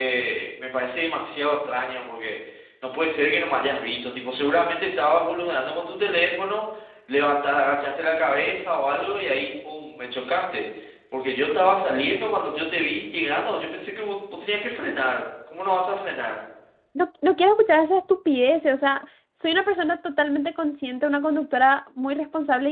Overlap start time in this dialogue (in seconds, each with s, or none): none